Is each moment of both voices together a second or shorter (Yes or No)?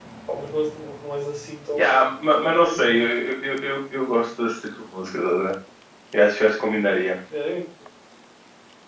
No